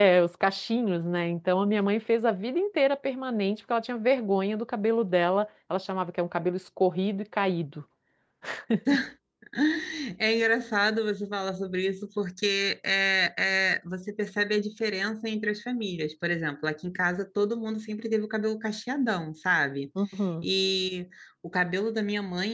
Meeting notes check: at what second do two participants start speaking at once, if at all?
none

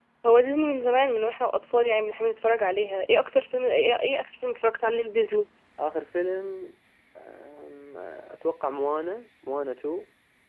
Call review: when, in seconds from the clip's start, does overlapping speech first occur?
none

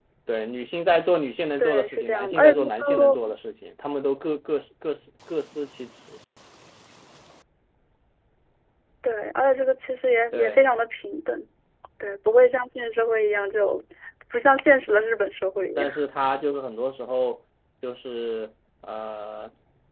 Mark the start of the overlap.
1.6 s

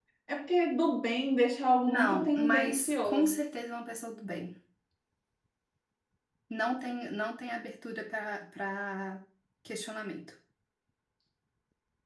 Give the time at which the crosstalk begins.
1.9 s

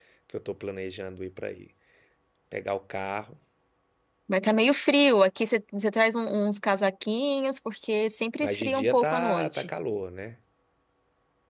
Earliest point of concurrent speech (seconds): 8.4 s

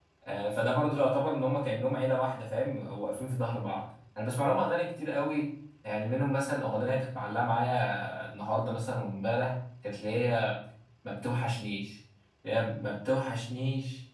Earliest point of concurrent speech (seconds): none

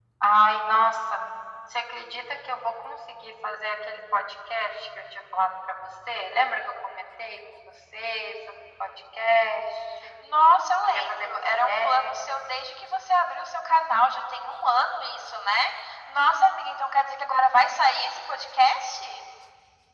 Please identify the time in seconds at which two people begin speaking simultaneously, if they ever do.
10.8 s

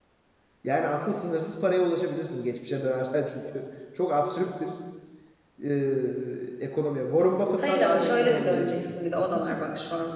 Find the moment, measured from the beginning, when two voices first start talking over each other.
7.6 s

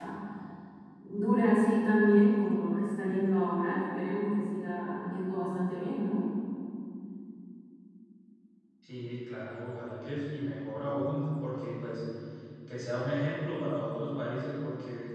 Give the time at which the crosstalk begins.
none

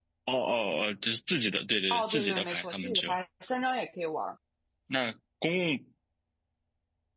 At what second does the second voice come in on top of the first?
1.9 s

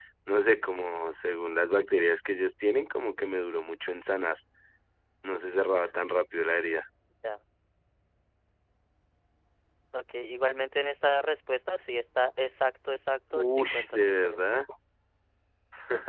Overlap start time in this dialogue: 13.3 s

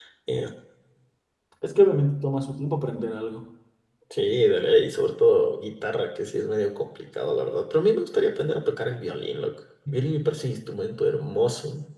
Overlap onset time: none

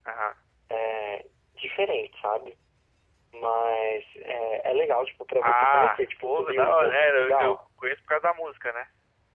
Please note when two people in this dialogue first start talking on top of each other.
5.4 s

